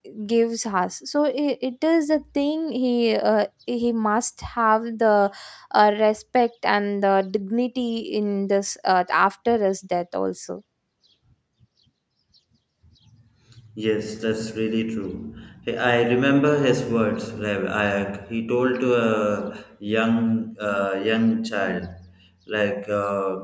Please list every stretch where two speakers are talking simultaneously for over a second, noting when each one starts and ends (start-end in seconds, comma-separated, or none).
none